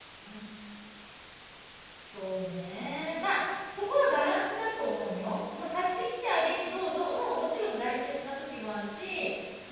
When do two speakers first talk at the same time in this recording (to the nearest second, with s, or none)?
none